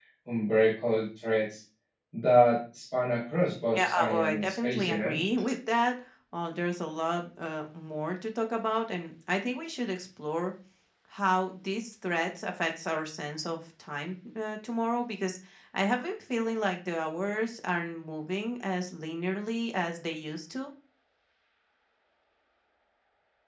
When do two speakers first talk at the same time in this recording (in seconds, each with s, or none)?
3.7 s